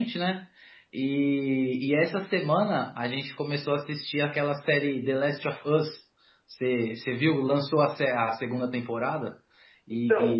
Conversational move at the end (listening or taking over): listening